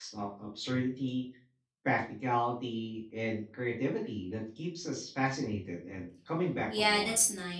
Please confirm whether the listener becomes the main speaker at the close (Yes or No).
Yes